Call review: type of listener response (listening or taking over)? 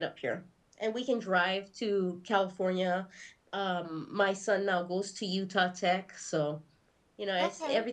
listening